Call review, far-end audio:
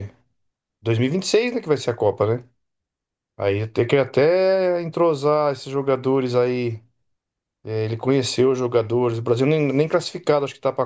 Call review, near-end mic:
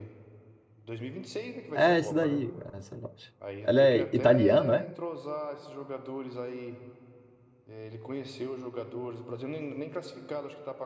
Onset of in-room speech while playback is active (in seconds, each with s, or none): 1.7 s